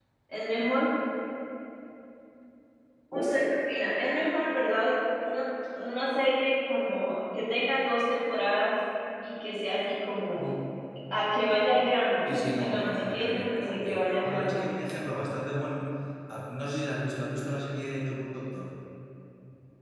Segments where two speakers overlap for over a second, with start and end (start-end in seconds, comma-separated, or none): 12.3-14.6